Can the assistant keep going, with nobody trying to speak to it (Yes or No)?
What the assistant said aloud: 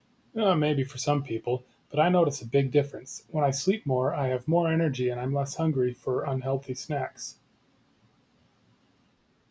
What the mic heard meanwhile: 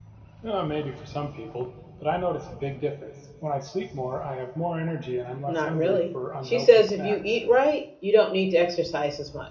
No